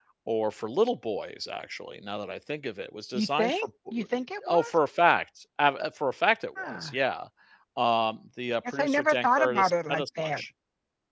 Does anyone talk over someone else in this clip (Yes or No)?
Yes